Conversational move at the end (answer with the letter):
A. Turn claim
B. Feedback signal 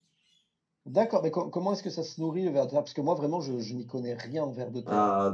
A